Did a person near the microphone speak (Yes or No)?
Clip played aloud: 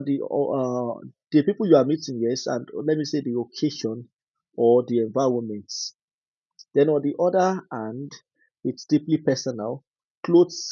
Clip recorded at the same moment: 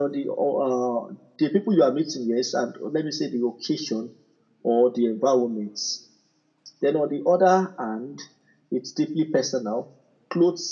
No